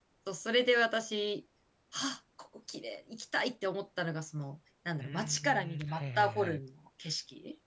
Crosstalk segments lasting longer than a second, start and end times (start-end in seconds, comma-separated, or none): 5.0-6.6